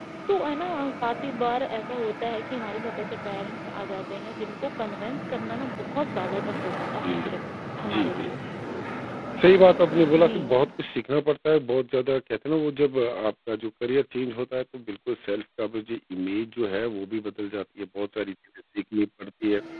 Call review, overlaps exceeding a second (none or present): none